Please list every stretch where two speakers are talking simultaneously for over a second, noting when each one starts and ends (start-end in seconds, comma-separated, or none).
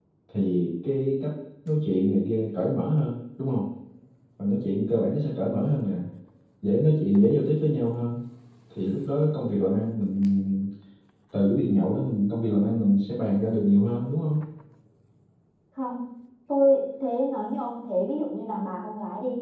none